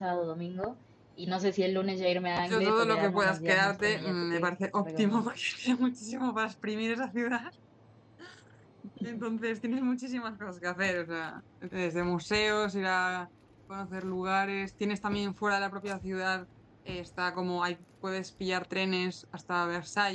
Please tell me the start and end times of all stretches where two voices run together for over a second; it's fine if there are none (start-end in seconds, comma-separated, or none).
2.5-5.3